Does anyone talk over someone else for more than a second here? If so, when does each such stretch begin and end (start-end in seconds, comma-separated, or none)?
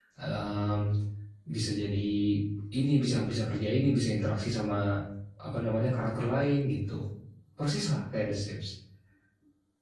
none